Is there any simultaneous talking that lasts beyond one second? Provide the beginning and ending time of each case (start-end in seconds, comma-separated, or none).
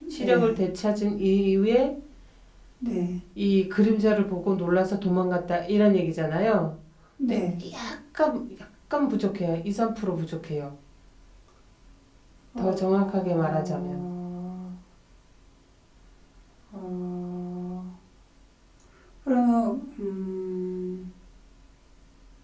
12.6-14.0